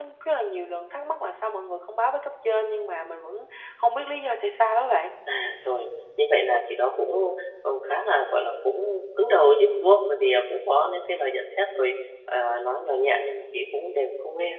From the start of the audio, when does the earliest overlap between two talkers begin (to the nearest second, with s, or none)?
none